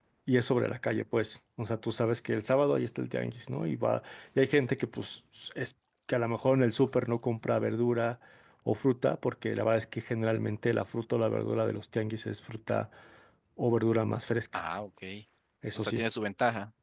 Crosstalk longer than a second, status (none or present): none